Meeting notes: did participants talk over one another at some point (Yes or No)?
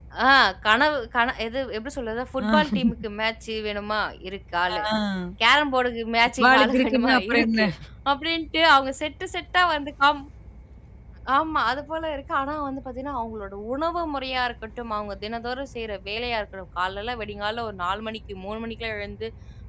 Yes